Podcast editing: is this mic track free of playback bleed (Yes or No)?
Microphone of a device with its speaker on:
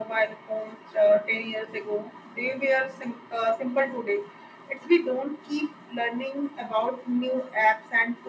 No